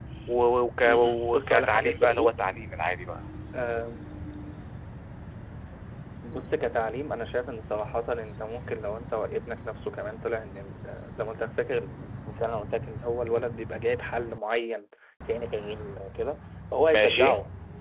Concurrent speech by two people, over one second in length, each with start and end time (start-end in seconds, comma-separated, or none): 0.8-2.5